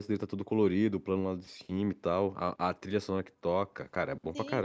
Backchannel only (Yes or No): No